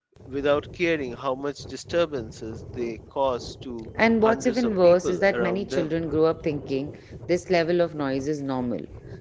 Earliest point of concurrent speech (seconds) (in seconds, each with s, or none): 4.2 s